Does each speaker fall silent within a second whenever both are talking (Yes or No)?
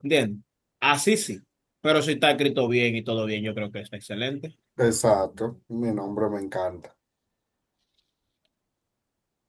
Yes